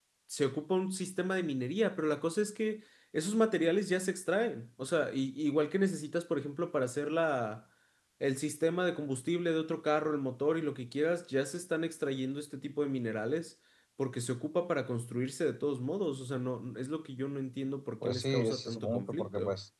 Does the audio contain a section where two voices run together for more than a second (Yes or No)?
Yes